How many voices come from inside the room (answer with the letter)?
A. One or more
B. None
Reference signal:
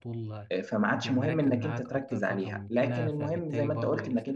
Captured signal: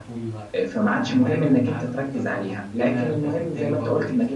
B